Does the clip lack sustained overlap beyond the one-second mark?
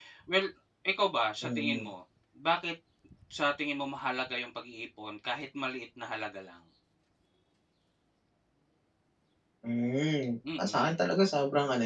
Yes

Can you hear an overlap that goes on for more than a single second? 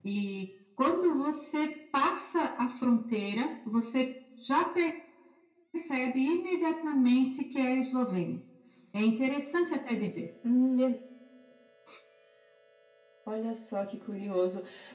No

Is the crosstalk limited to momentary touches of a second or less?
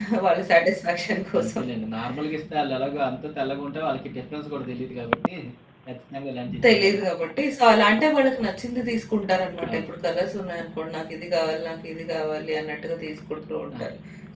Yes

